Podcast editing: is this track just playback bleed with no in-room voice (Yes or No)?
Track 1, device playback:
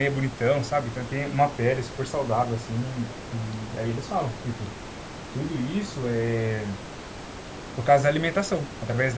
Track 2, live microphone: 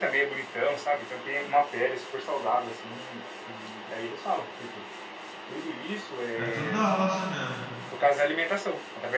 No